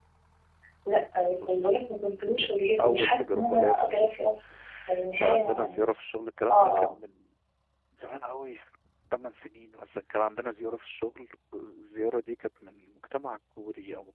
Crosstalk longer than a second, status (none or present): present